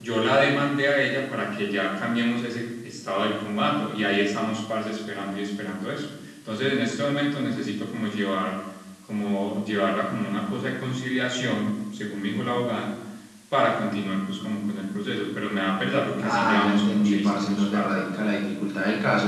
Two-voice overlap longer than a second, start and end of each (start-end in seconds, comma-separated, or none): 16.2-18.0